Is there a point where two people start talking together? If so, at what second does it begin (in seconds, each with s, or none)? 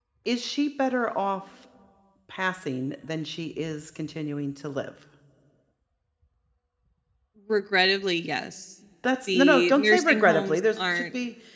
9.3 s